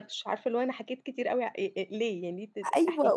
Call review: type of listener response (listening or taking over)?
taking over